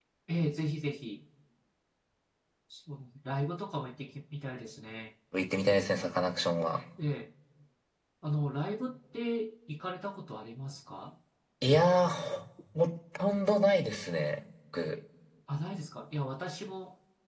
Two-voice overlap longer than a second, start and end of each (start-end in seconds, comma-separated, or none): none